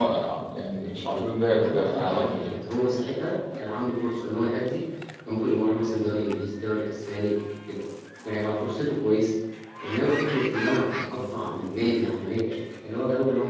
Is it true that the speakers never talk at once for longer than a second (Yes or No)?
No